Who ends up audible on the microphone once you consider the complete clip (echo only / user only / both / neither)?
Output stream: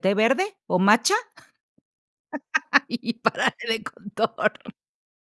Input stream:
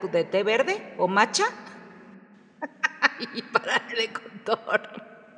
echo only